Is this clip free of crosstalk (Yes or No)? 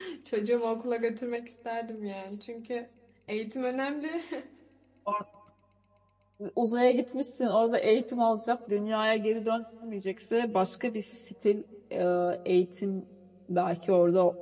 Yes